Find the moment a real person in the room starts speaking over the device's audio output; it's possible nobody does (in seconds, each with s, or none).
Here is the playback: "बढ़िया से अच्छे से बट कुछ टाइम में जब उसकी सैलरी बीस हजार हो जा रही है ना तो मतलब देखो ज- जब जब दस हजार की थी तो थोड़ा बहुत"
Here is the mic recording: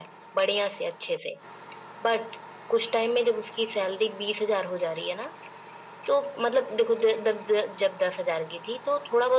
none